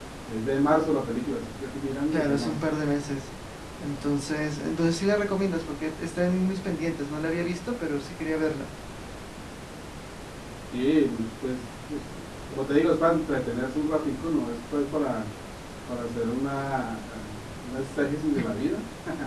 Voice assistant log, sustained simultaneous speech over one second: none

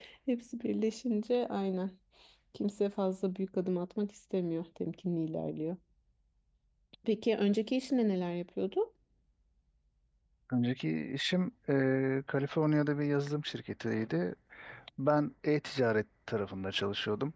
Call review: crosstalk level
none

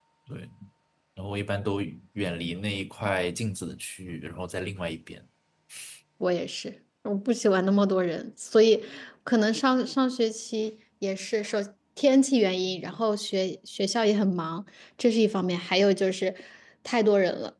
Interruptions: none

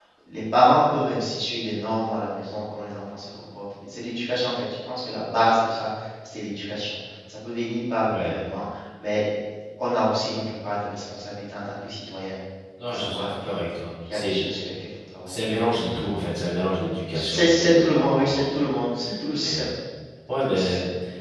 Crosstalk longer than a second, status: present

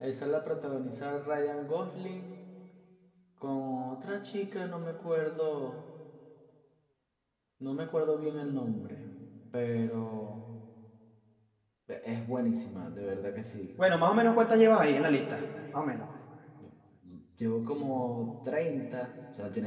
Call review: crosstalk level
none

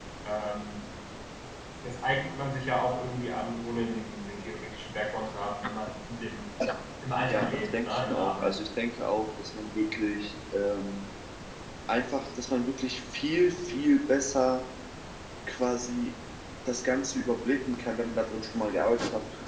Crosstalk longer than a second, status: present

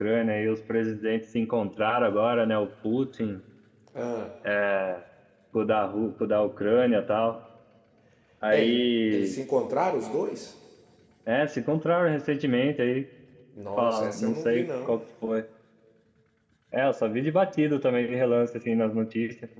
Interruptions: present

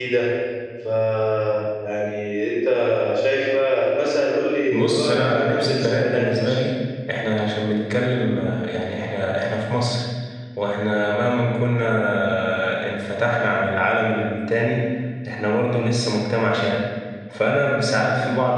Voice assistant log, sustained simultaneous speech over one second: present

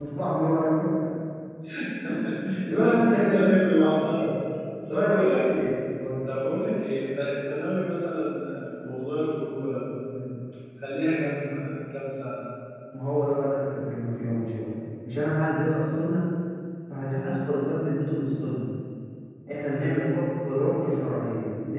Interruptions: present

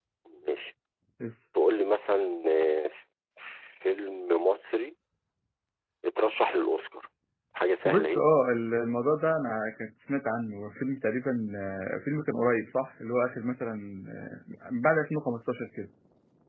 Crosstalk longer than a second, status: none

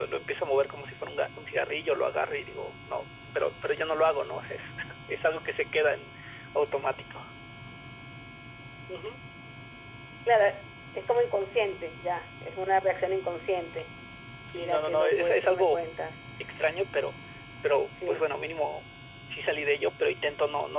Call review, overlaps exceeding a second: present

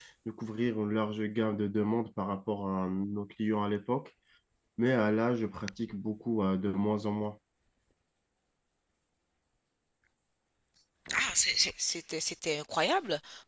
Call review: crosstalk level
none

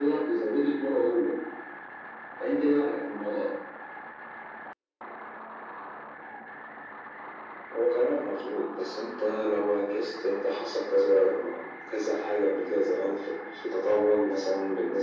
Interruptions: none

